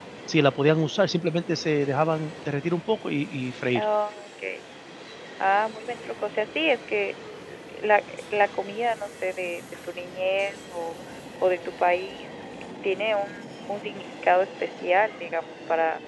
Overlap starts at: none

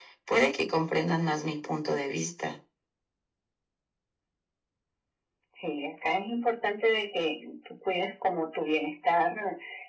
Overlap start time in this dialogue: none

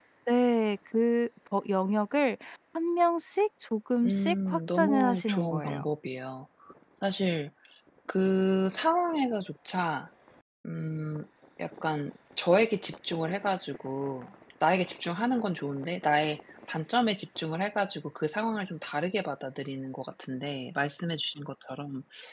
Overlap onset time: 4 s

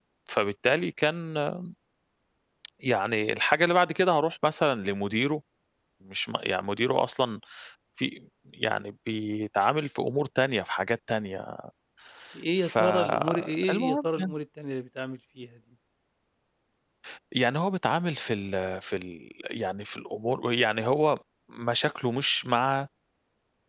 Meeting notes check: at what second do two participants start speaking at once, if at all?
13 s

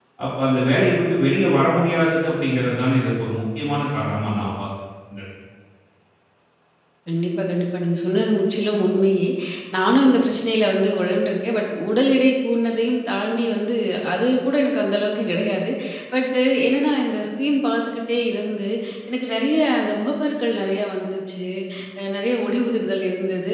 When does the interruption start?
none

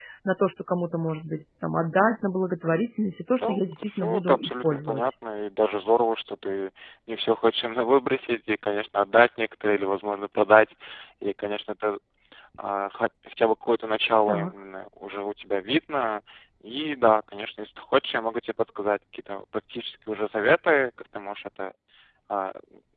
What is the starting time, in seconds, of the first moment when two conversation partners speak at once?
3 s

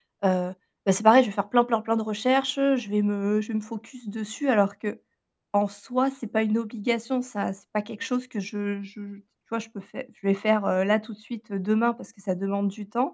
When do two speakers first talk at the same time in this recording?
none

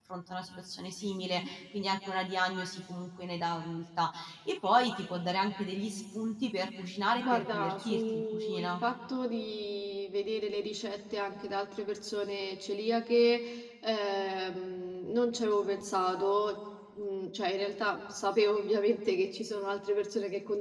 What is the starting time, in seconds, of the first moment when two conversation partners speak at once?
7 s

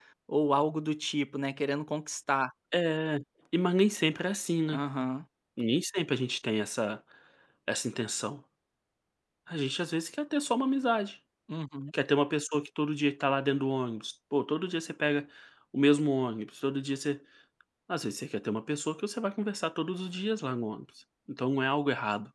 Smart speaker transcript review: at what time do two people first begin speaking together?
none

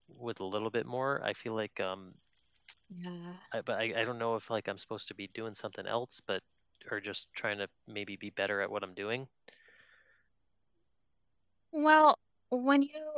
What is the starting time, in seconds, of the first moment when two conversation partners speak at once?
none

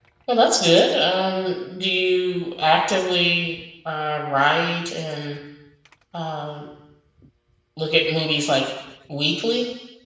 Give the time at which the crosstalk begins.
none

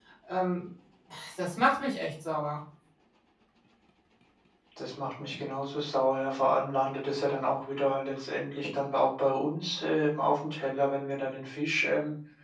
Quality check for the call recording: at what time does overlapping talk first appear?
none

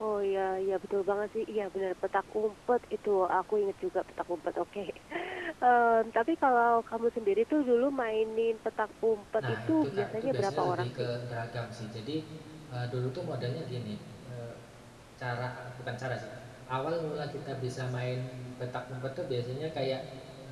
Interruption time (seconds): 9 s

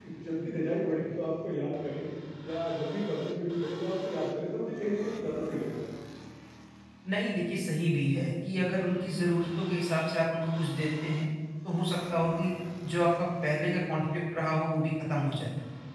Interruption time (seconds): none

